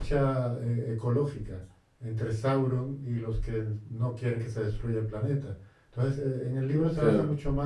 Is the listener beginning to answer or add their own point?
No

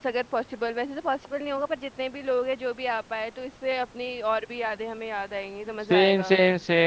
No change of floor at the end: No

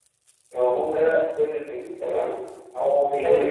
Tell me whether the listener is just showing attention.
Yes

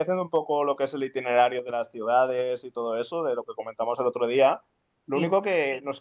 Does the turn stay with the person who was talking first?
Yes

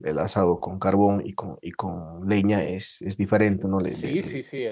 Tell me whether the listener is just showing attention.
No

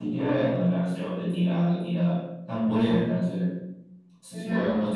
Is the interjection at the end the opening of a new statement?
No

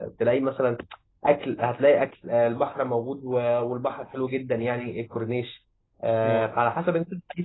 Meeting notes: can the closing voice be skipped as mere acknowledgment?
Yes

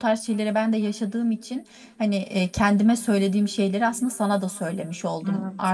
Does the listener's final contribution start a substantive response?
No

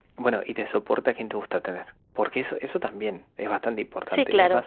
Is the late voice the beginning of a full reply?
Yes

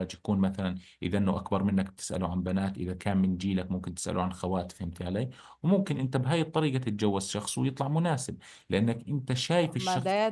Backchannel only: No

